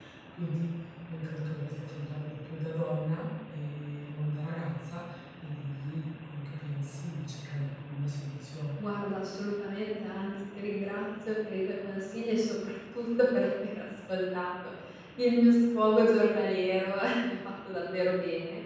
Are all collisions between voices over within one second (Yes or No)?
Yes